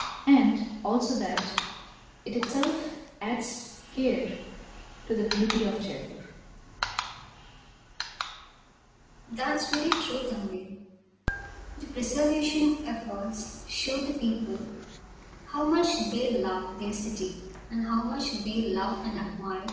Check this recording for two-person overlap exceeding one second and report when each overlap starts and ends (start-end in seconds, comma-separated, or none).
none